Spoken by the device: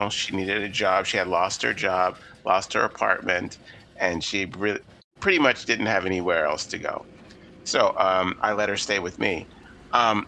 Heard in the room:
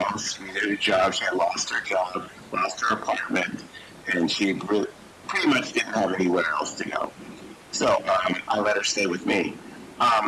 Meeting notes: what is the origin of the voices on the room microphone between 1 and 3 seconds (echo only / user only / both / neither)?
echo only